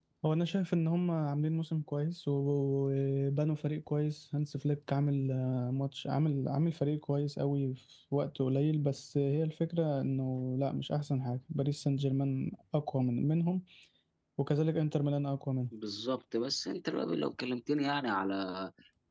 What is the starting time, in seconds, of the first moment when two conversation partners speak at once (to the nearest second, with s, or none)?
none